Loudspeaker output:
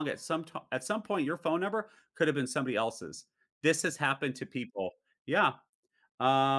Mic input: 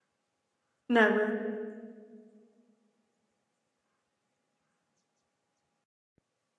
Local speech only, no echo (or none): Never.